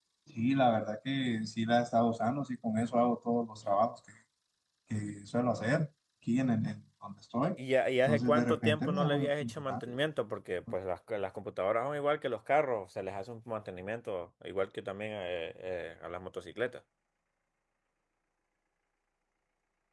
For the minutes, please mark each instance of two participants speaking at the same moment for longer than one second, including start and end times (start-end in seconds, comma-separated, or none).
8.1-9.8